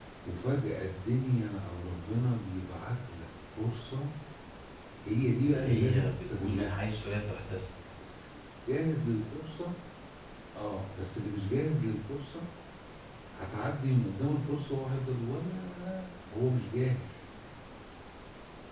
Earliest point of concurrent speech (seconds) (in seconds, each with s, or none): 5.4 s